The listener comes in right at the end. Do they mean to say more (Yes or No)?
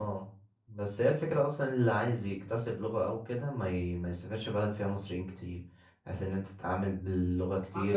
Yes